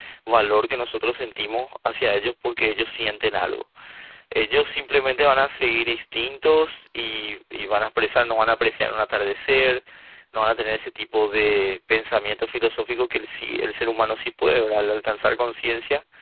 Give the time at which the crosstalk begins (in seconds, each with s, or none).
none